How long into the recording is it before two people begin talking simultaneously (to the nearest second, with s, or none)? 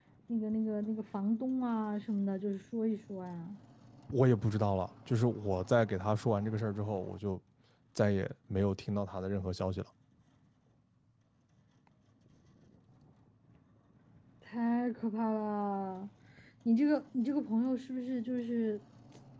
none